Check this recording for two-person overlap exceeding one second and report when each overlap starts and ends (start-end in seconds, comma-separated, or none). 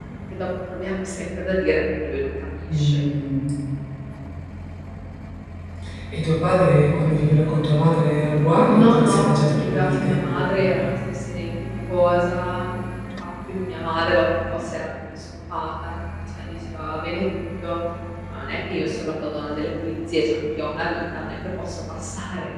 8.7-10.5